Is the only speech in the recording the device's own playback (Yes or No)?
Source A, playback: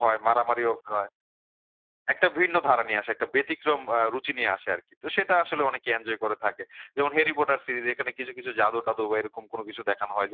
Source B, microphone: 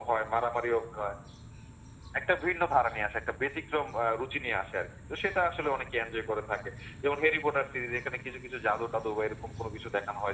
Yes